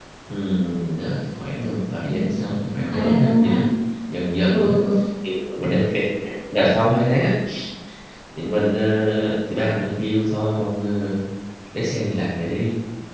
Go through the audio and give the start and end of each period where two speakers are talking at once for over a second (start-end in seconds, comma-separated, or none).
2.1-3.6